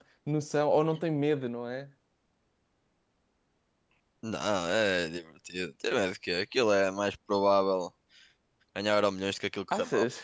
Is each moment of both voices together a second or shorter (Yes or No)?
Yes